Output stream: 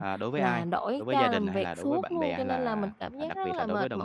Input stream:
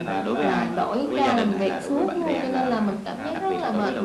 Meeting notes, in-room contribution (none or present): present